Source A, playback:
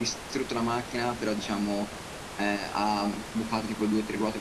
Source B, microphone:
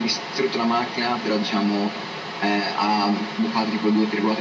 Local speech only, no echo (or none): none